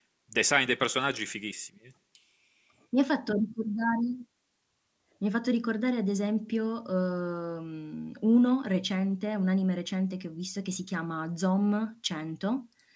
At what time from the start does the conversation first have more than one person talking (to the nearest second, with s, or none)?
none